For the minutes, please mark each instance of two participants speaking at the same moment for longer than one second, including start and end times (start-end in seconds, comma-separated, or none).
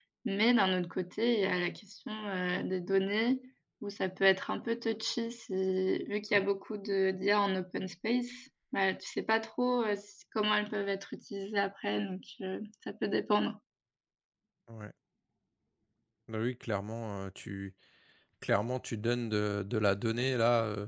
none